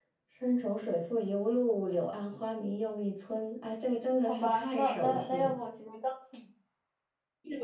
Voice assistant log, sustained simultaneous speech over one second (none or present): present